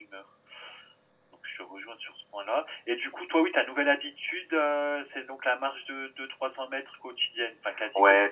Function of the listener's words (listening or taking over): taking over